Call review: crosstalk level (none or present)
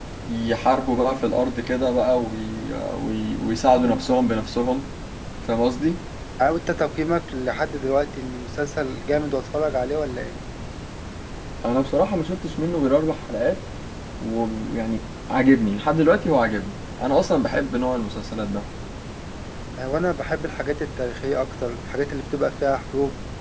none